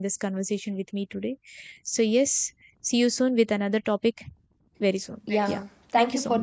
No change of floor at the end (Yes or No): No